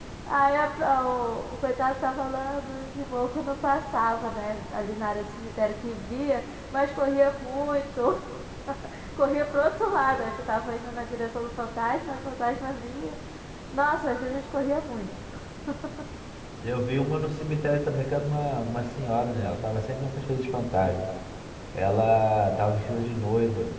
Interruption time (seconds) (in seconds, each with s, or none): none